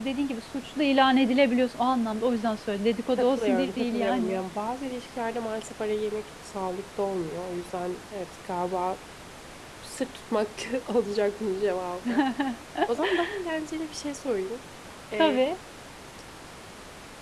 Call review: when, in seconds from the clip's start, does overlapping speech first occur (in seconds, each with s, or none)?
3.2 s